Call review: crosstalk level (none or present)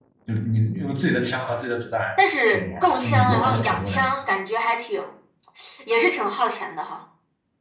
present